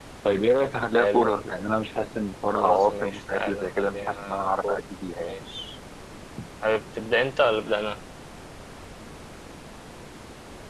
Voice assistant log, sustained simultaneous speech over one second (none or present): present